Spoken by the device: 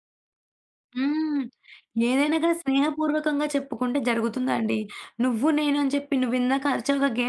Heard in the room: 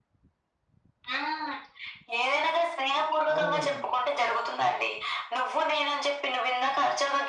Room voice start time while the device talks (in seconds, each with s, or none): 3.3 s